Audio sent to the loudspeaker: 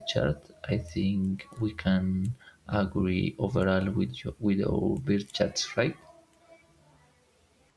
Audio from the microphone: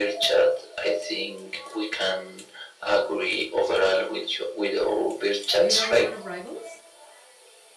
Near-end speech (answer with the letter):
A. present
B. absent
A